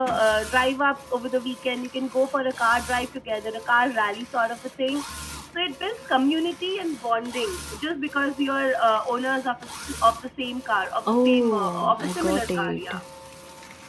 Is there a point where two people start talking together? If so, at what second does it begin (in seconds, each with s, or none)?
11.1 s